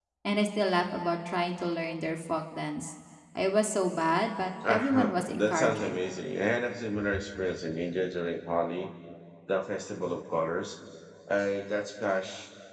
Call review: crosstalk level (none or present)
present